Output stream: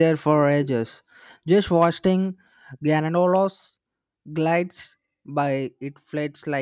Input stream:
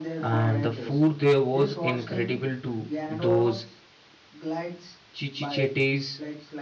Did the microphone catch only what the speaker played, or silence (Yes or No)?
No